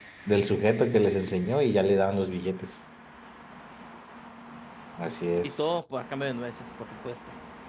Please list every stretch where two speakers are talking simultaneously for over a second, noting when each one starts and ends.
none

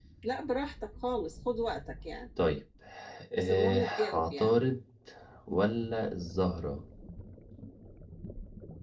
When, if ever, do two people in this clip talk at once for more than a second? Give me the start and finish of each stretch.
3.3-4.5

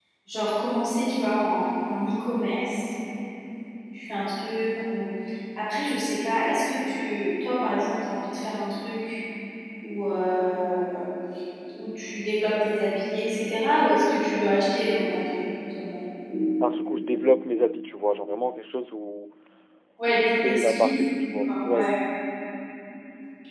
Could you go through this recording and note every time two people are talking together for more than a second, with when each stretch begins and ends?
20.1-21.9

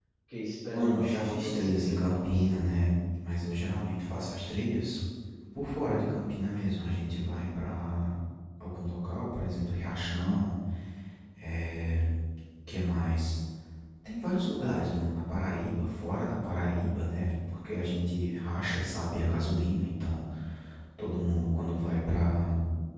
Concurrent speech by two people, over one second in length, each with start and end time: 0.7-2.3

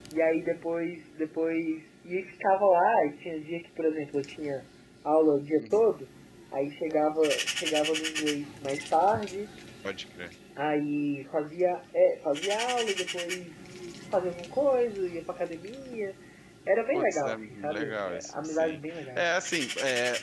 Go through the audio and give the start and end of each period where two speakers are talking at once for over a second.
16.9-19.3

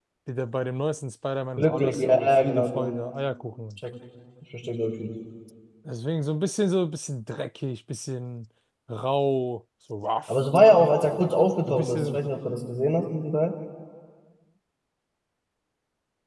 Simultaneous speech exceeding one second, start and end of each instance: 1.6-2.9

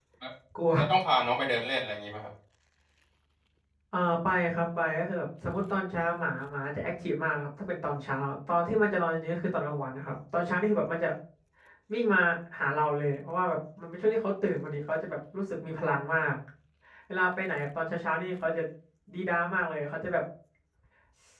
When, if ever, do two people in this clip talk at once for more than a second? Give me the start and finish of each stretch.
none

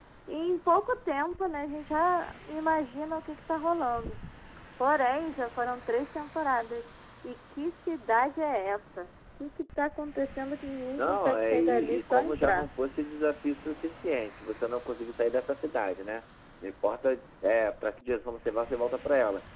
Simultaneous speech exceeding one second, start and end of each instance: 11.0-12.7

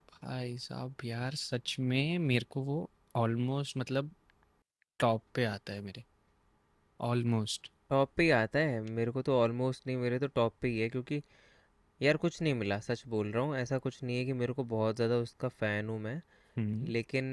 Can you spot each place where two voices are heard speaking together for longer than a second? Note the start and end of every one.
none

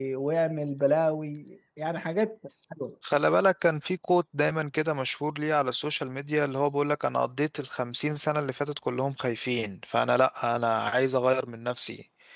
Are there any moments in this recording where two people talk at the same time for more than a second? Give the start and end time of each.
none

